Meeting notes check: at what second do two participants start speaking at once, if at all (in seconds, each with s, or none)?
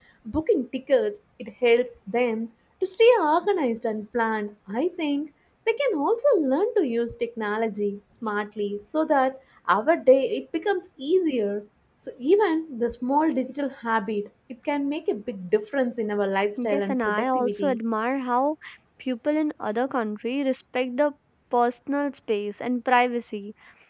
16.6 s